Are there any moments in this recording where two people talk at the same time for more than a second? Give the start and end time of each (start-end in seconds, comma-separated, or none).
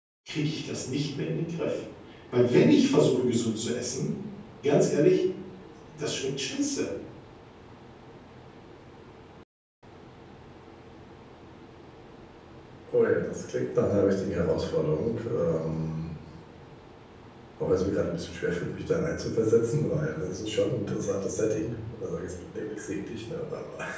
none